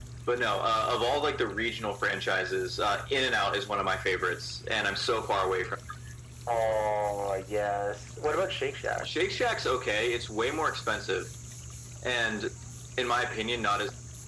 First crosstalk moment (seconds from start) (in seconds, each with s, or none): none